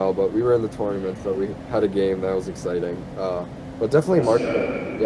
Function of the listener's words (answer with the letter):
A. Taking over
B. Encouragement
B